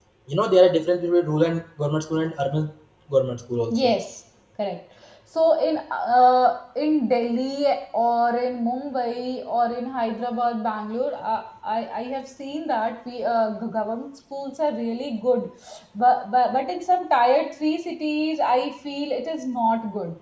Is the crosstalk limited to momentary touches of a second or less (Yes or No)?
Yes